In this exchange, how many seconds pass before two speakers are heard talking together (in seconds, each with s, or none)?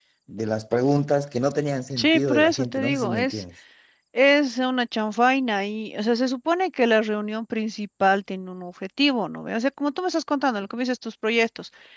2.0 s